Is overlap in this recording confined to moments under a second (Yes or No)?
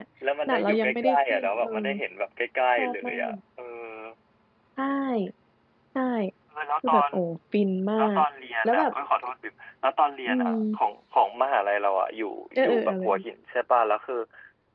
No